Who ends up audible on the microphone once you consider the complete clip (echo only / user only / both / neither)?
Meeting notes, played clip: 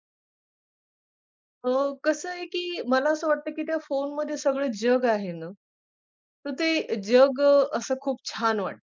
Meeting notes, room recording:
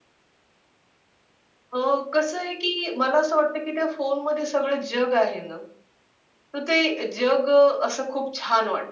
echo only